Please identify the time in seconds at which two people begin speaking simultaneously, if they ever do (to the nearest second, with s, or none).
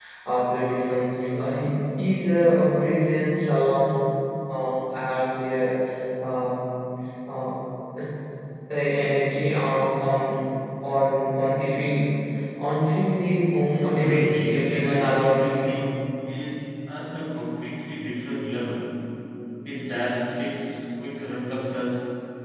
14 s